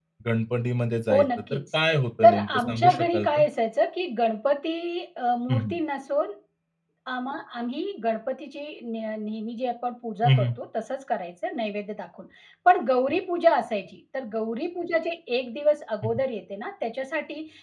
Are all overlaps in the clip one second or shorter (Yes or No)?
No